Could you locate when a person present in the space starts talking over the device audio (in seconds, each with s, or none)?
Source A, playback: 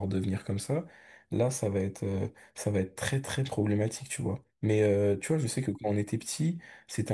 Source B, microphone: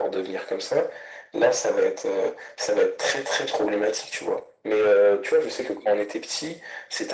none